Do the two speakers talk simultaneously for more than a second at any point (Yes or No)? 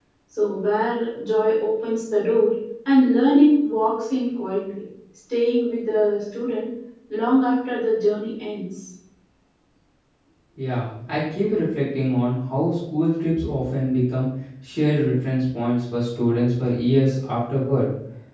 No